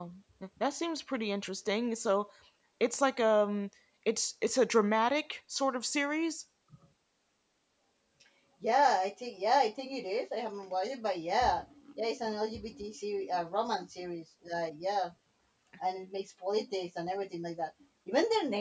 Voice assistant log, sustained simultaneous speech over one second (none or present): none